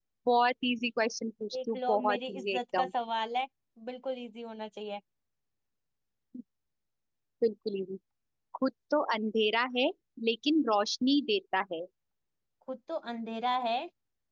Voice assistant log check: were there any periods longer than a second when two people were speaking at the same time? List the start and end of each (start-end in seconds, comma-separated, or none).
1.5-2.9